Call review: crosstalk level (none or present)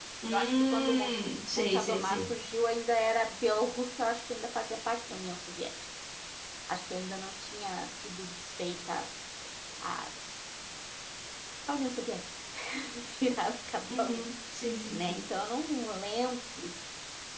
present